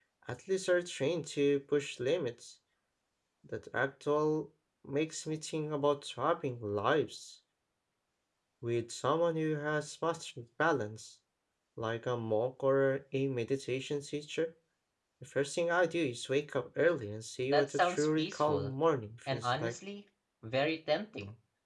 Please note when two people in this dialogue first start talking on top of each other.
17.5 s

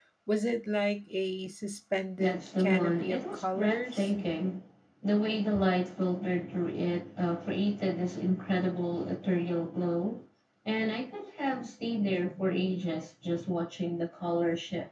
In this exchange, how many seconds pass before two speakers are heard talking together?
2.2 s

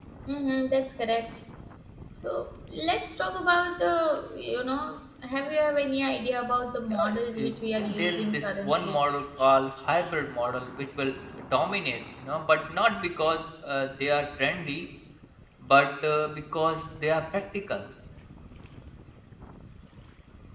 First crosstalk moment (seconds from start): 6.9 s

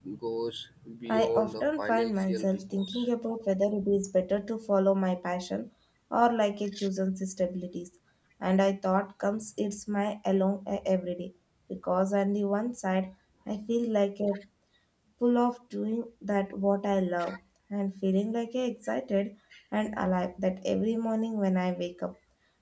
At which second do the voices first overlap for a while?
1.1 s

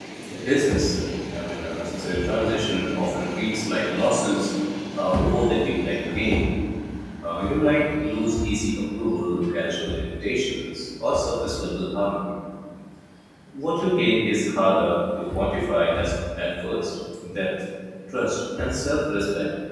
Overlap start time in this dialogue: none

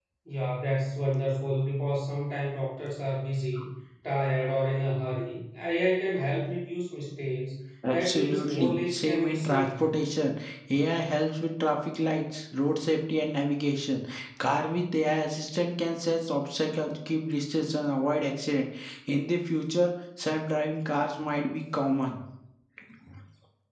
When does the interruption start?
7.8 s

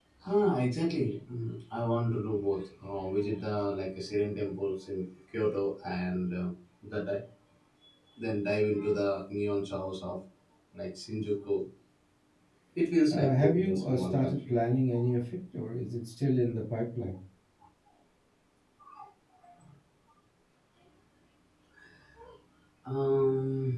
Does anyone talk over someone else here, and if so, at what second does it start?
13.1 s

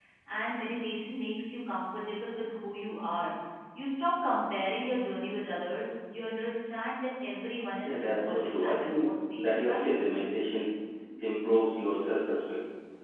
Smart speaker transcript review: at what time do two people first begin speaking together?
7.8 s

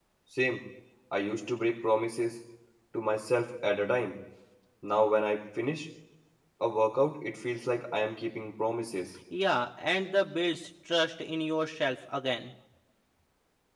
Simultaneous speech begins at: none

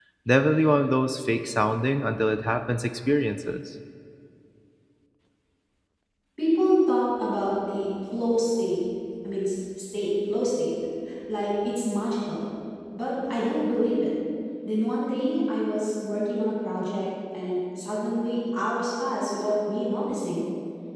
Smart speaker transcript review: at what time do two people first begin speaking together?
none

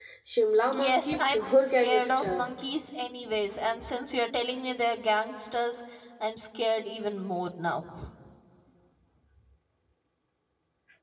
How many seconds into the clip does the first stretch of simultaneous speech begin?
0.6 s

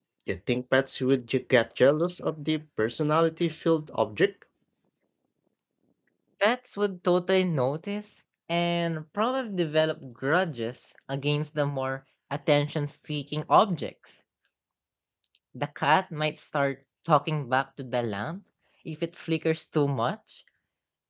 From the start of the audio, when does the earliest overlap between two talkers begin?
none

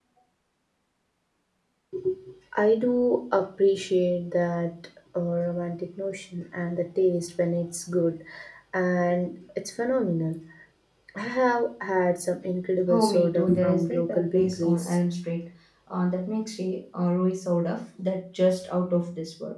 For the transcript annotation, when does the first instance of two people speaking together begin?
12.9 s

